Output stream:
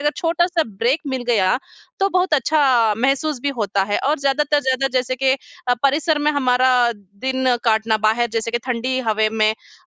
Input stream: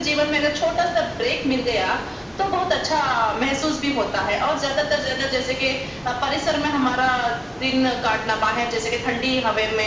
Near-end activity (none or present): none